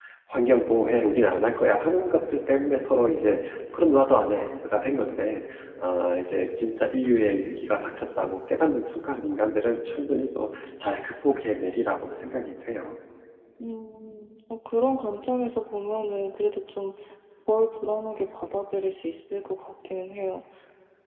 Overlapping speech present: No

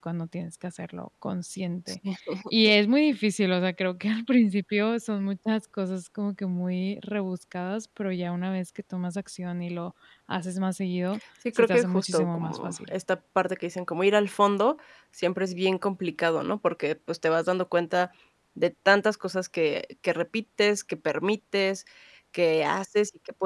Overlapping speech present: Yes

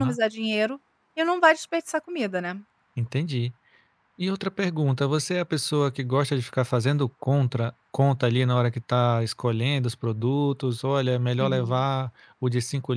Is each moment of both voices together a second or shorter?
Yes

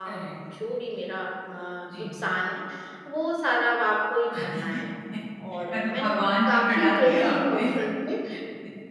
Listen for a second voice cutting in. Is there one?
Yes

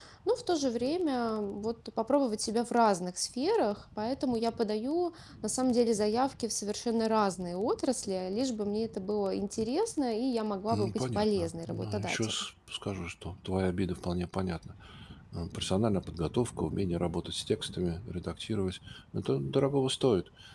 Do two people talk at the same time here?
Yes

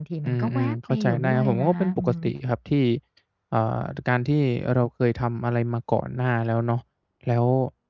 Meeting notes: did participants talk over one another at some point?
Yes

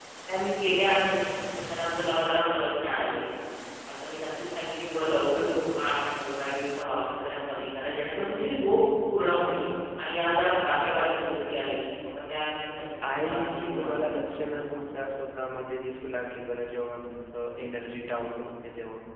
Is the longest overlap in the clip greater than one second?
Yes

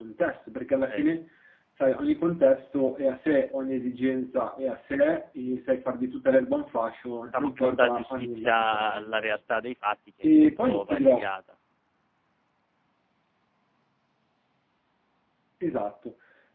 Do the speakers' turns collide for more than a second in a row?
Yes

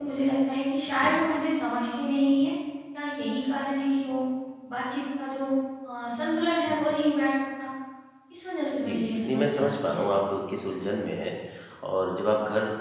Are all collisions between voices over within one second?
No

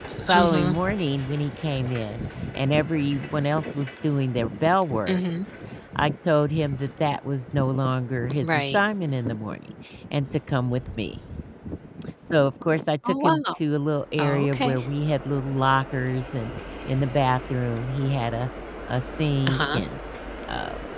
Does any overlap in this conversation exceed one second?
No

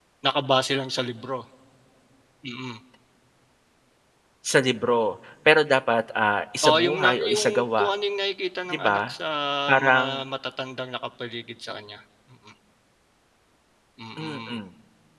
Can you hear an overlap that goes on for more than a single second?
Yes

